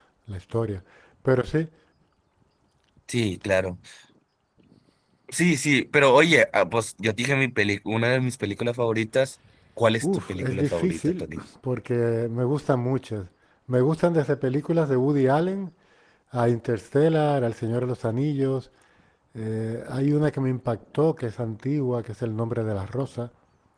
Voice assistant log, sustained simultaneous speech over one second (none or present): present